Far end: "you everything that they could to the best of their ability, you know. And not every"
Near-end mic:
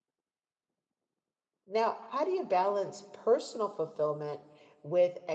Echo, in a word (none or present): none